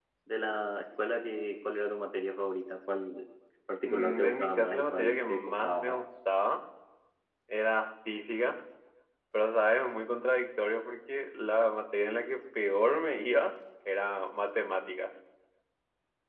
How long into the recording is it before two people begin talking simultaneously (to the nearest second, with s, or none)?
4 s